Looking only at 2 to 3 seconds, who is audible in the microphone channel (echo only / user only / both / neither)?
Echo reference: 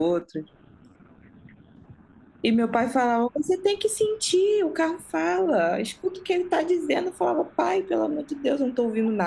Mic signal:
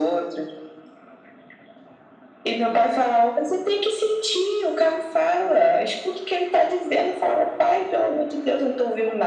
echo only